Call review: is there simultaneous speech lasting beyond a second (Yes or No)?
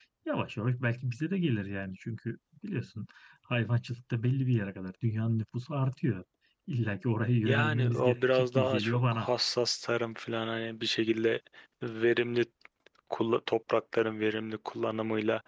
Yes